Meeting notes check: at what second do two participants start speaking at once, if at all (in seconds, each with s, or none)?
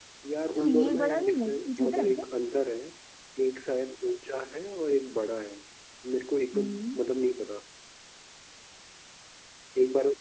0.6 s